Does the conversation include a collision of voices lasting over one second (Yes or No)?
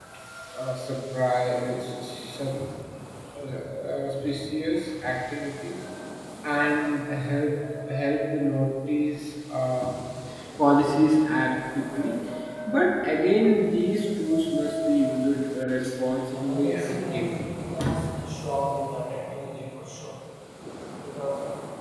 Yes